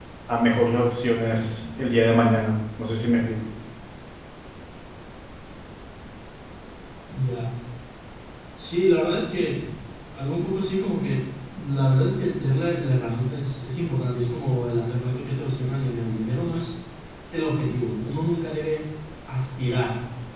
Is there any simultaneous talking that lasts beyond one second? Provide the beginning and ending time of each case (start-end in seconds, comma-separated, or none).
none